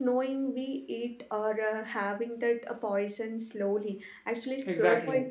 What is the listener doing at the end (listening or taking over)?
listening